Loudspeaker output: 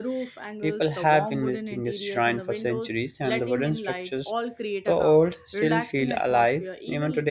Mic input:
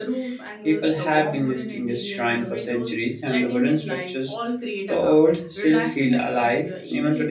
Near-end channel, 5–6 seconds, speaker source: echo only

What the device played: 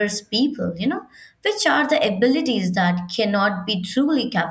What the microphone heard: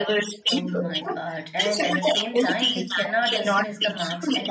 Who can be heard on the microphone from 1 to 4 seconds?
both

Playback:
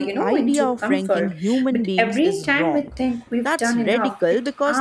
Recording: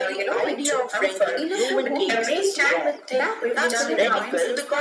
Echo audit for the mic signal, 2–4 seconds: both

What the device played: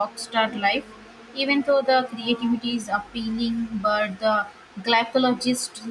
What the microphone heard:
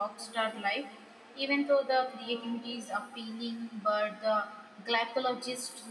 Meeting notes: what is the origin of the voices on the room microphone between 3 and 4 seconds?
echo only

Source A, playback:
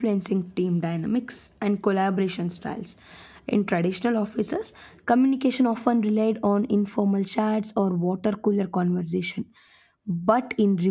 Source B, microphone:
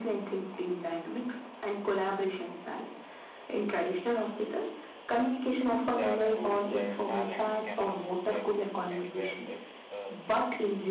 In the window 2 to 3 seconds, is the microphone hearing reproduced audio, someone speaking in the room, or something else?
echo only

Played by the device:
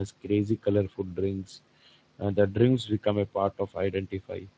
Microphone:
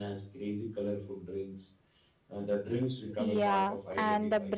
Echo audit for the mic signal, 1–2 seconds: echo only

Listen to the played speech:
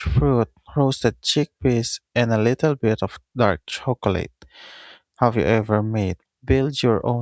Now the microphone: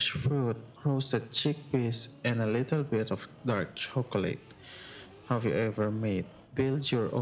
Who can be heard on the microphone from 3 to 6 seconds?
echo only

